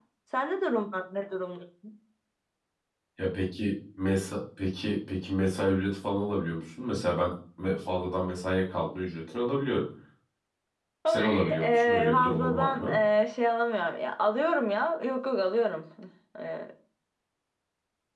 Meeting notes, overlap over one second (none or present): present